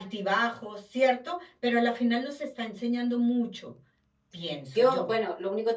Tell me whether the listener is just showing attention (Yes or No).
No